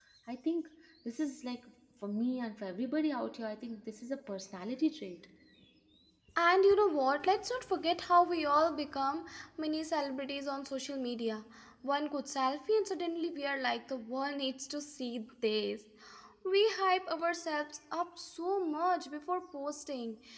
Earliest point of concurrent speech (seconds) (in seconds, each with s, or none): none